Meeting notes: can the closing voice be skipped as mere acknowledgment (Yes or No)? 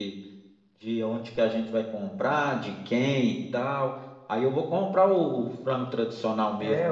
No